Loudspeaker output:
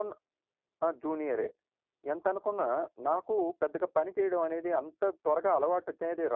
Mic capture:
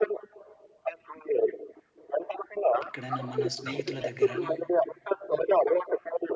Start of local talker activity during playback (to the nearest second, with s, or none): 3 s